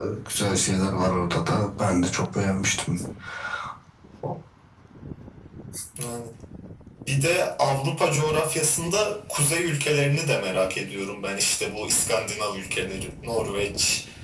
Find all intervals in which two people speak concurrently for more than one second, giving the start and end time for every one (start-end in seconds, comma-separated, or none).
none